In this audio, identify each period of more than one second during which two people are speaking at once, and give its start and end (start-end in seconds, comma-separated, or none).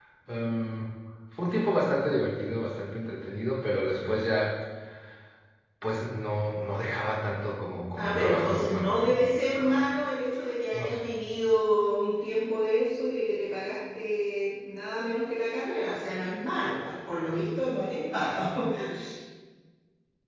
8.0-9.8